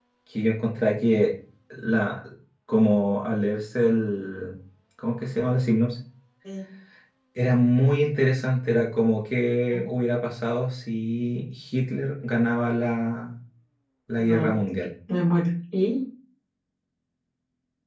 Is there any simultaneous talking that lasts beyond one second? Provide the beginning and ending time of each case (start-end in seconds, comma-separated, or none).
none